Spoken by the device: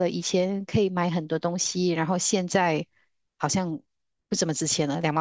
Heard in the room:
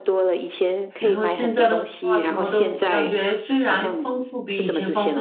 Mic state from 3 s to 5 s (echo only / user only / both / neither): both